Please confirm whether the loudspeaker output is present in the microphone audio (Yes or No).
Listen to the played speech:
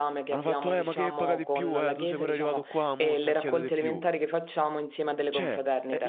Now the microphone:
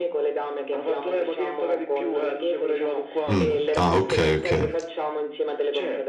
Yes